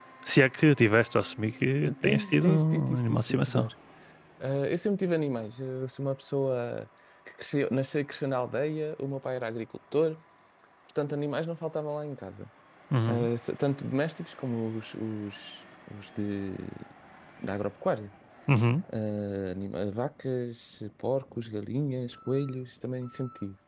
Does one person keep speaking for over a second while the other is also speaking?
Yes, from 1.8 s

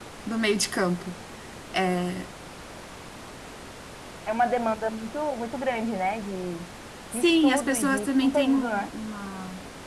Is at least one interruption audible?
Yes, from 7.1 s

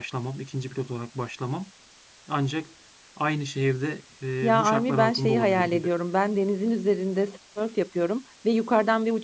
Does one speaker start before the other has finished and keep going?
Yes, from 4.4 s

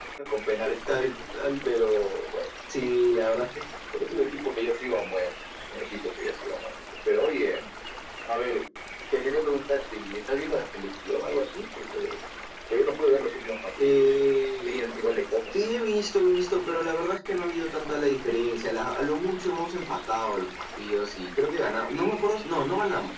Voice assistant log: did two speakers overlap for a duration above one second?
No

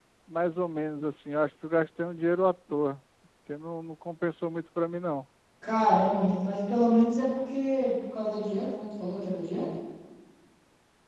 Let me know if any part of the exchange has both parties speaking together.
No

